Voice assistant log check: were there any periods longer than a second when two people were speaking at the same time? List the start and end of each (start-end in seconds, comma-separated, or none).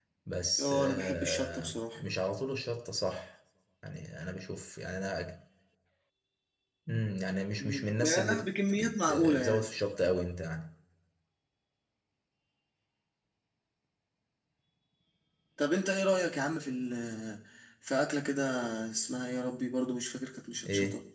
0.6-2.0, 7.6-9.7